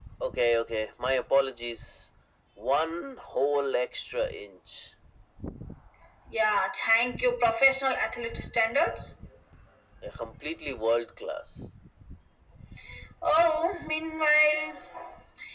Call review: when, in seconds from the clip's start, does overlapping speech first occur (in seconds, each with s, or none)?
none